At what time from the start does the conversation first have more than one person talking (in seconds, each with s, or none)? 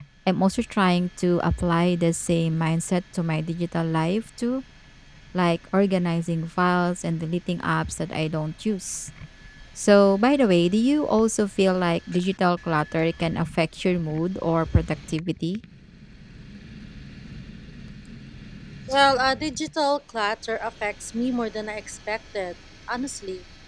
none